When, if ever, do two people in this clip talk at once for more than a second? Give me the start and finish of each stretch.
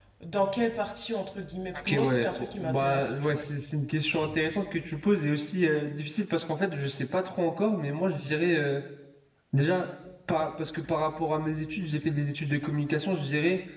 1.7-3.4

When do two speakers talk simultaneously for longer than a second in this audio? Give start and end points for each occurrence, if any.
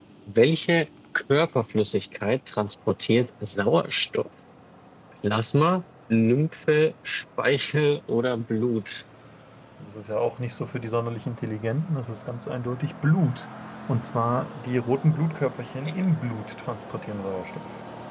none

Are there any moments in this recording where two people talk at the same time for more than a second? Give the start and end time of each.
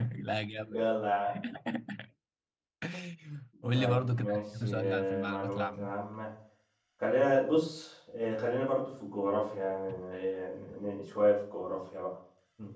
3.7-5.9

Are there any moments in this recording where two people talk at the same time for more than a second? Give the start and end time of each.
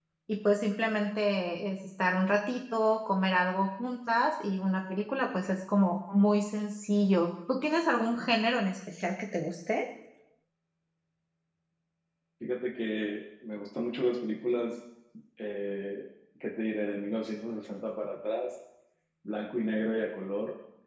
none

